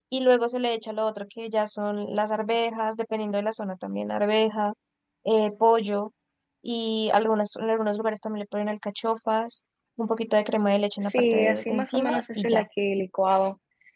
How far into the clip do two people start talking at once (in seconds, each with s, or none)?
11.1 s